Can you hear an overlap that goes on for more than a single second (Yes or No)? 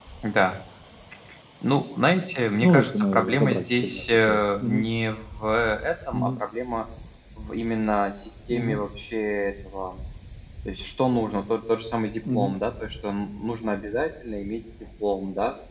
Yes